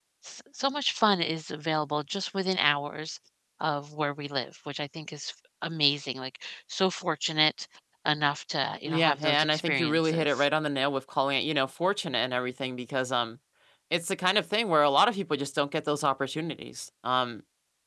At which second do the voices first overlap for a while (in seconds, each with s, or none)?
8.8 s